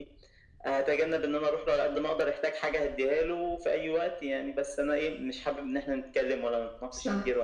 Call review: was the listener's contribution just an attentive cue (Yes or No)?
Yes